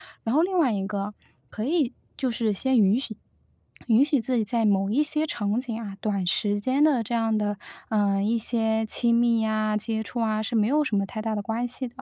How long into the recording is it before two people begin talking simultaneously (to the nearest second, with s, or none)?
none